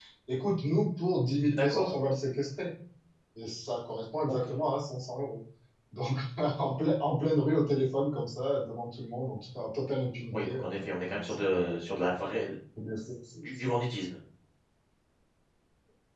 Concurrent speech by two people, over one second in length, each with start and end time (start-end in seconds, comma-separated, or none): 10.3-11.7